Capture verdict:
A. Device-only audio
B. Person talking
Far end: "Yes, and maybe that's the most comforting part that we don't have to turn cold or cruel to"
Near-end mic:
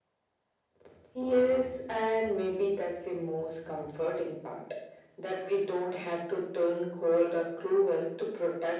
A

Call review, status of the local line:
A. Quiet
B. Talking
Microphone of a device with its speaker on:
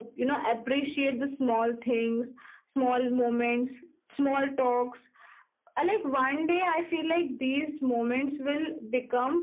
A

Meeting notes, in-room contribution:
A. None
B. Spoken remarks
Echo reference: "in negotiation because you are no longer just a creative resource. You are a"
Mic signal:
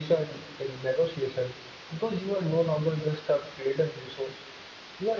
A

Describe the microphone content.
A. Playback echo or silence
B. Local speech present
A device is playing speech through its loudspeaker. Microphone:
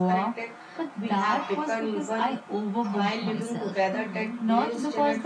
B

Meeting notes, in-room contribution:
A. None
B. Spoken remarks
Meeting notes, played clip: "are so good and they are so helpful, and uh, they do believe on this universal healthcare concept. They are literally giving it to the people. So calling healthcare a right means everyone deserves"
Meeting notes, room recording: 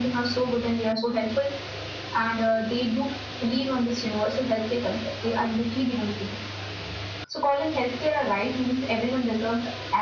A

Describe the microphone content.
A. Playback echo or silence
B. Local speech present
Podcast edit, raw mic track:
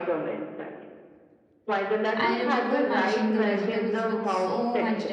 B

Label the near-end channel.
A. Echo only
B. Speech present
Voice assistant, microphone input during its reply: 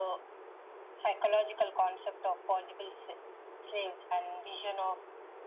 A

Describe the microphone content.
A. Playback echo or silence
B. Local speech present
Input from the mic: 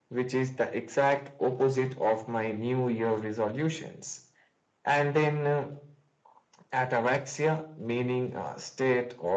A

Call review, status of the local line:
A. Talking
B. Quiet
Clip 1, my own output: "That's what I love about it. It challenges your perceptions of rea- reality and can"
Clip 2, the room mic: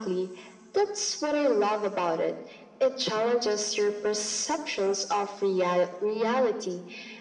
B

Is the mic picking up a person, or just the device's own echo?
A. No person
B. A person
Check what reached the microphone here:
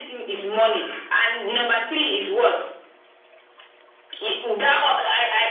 A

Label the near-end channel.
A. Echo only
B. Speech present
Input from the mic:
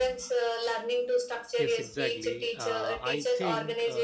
B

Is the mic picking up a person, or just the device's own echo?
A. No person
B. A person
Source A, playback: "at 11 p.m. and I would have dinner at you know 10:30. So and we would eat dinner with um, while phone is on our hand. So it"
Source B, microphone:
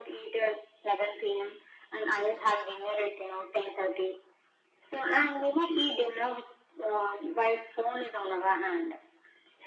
A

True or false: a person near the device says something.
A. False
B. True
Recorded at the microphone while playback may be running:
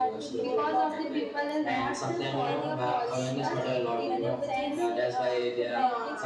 B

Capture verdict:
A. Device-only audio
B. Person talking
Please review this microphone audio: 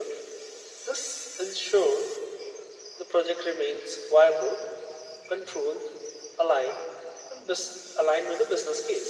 A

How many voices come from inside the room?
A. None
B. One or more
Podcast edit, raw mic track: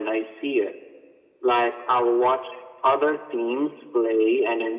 A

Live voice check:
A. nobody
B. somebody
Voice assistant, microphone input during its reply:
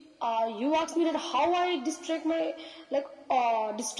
A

